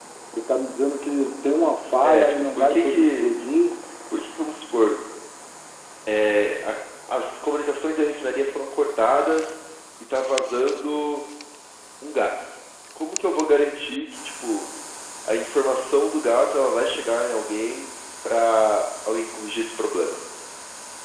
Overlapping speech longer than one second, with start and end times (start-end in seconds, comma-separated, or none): 2.0-3.3